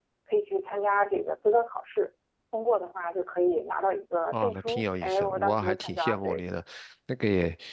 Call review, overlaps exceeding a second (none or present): present